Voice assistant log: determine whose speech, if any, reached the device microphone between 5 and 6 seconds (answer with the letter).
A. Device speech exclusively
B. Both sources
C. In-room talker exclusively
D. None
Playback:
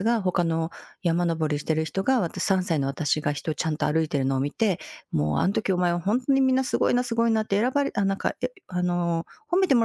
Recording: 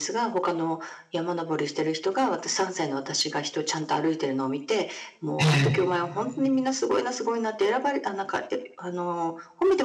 B